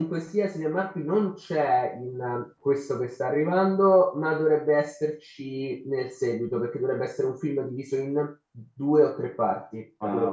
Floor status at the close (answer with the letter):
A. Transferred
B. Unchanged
A